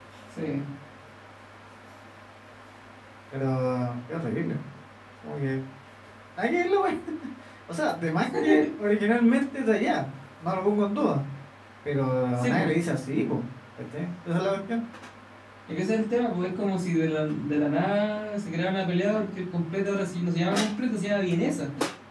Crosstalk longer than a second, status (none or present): none